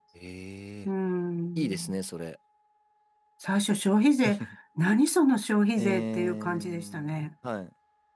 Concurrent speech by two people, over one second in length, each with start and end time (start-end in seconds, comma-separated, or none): 5.8-7.1